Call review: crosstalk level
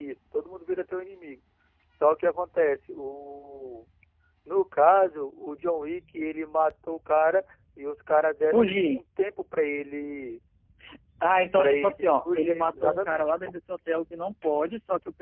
present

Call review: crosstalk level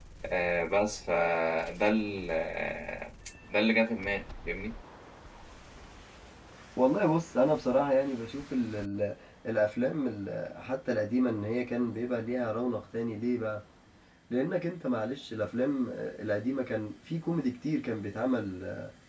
none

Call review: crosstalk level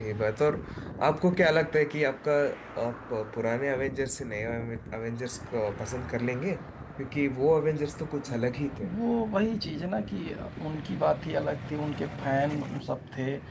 none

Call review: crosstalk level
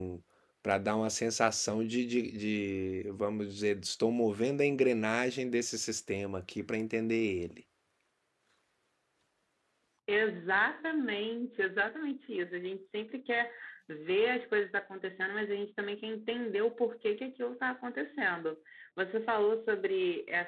none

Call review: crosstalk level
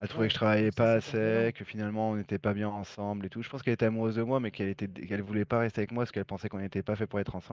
present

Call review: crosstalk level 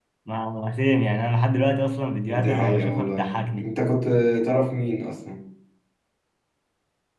present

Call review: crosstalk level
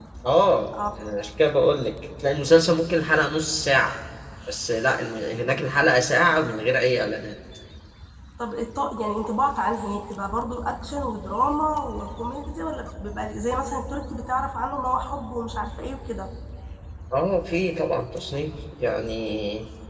none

